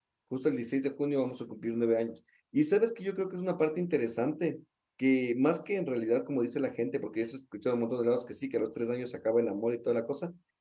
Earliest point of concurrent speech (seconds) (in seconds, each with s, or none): none